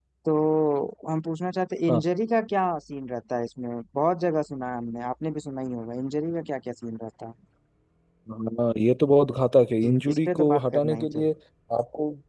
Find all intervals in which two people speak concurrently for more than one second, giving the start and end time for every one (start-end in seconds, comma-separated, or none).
9.8-11.3